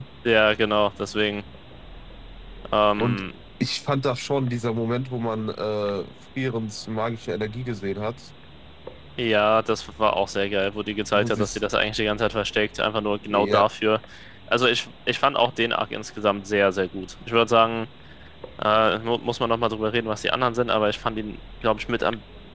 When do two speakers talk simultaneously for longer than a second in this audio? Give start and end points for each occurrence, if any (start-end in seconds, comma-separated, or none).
none